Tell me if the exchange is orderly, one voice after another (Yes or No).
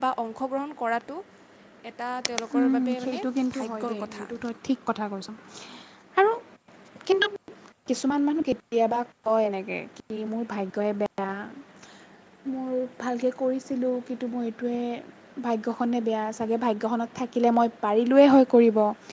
No